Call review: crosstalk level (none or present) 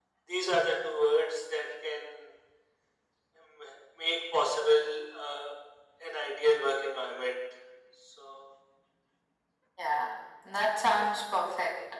none